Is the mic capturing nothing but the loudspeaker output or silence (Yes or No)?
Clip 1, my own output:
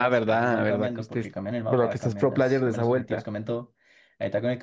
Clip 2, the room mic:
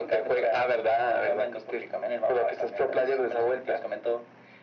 Yes